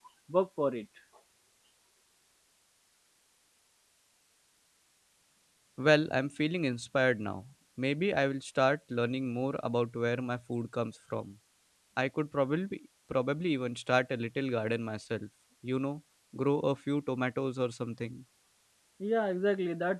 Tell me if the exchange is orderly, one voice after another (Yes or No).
Yes